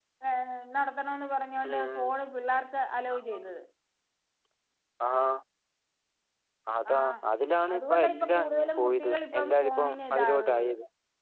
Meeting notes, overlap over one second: present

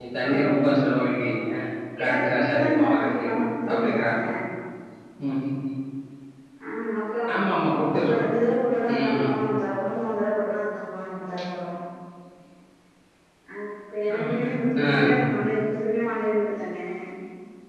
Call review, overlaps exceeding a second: present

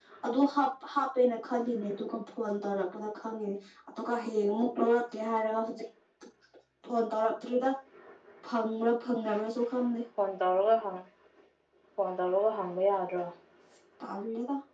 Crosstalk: none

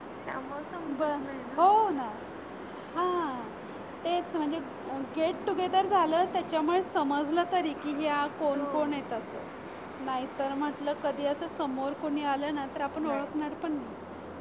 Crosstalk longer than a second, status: none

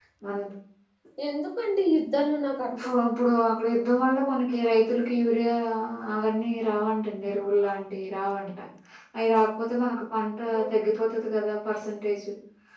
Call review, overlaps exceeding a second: none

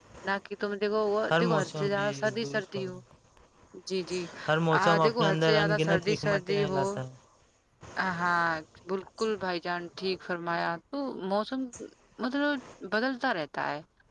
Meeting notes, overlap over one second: present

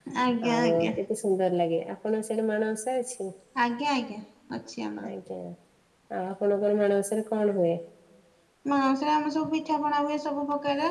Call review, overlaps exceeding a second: none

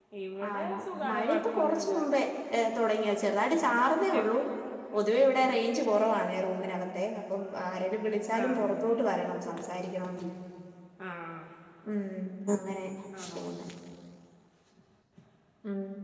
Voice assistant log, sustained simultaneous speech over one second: present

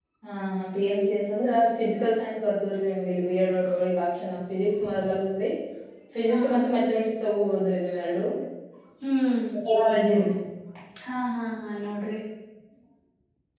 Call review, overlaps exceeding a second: none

